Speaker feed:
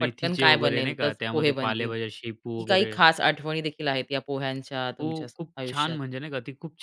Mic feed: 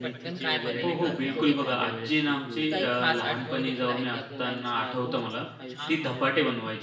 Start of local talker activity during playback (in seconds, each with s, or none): 0.8 s